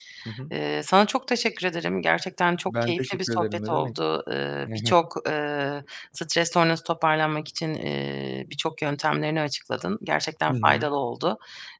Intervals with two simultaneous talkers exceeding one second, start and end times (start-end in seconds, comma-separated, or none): 2.7-3.9